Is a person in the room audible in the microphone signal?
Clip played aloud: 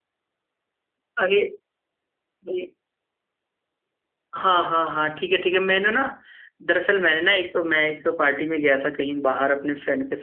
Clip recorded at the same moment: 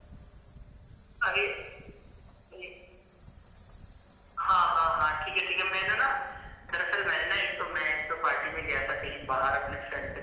No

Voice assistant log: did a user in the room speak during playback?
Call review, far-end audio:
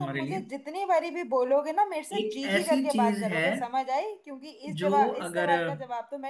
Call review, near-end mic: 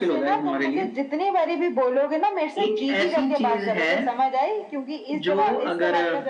No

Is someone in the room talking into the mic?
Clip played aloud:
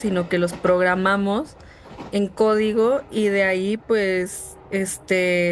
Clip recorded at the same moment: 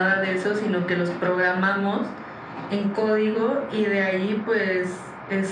No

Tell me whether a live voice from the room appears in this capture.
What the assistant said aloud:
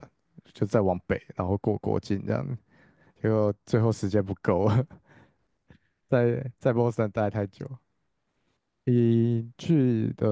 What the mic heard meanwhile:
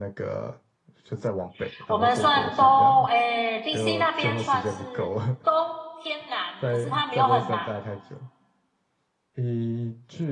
Yes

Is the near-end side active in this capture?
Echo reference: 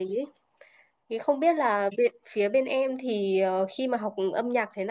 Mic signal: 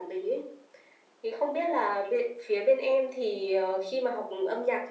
No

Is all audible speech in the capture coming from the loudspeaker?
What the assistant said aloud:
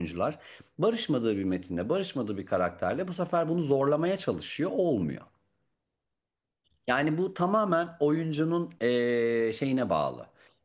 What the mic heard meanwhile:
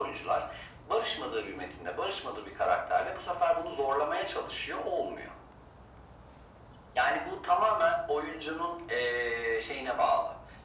Yes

